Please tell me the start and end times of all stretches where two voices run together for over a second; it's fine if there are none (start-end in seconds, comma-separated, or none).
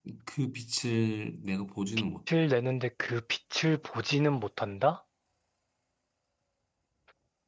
none